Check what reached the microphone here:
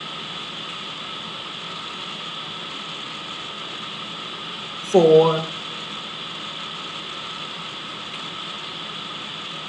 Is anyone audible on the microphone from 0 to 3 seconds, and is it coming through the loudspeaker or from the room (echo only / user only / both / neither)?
neither